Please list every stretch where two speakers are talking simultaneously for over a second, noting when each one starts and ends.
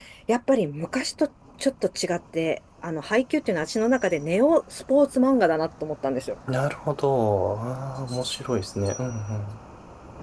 none

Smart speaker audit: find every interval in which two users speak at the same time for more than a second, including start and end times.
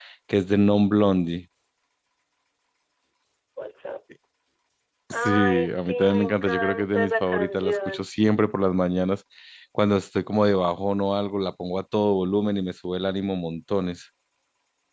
5.1-8.0

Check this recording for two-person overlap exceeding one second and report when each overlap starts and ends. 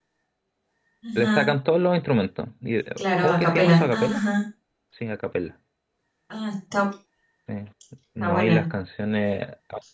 3.0-4.2

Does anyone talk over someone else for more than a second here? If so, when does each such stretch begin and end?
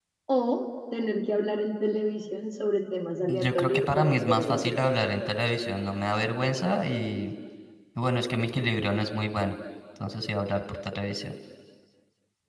3.3-4.9

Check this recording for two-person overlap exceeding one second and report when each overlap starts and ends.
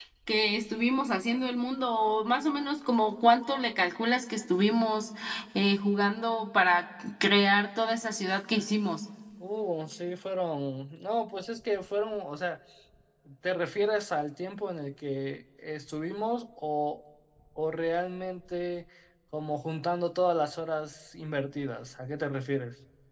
none

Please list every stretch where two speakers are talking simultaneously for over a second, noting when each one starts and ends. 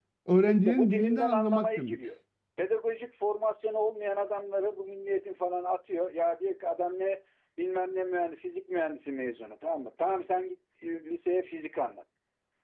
0.7-2.0

